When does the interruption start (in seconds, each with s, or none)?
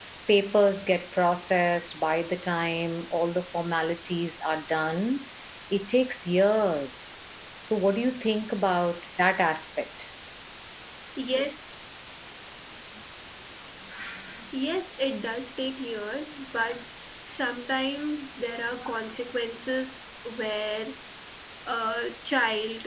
none